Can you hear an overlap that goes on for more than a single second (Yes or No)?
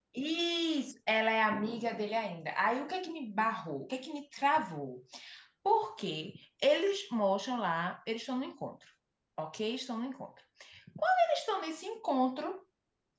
No